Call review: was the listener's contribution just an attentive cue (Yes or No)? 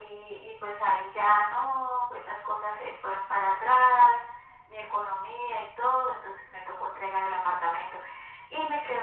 Yes